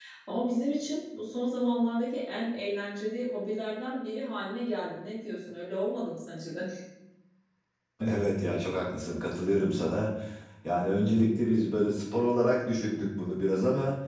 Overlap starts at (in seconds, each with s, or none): none